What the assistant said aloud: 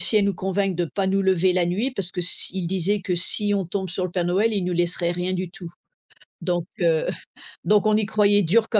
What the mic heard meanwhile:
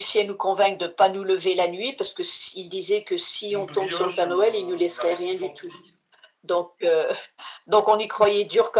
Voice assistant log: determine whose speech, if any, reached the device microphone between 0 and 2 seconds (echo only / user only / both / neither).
echo only